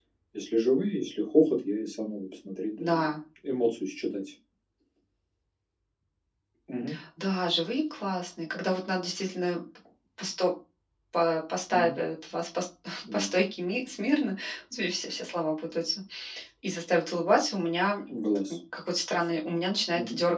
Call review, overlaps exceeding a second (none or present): none